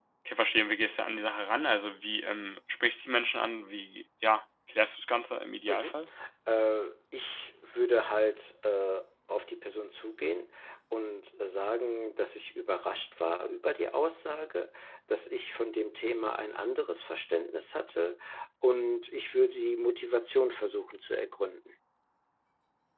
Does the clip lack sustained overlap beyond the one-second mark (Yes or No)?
Yes